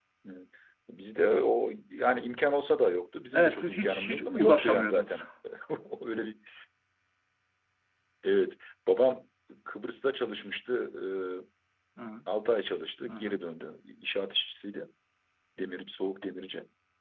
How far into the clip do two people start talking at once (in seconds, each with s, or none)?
3.3 s